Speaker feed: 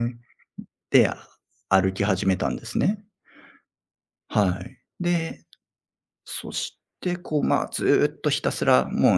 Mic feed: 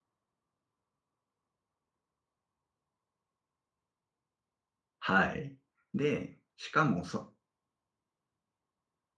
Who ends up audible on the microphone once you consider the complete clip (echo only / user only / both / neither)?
user only